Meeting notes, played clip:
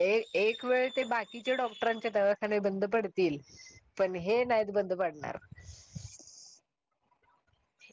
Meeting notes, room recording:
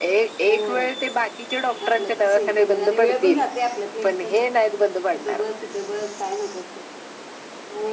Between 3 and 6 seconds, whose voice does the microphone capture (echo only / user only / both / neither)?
both